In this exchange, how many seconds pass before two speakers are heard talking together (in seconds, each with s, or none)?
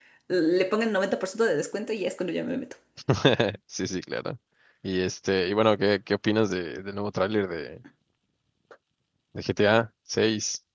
none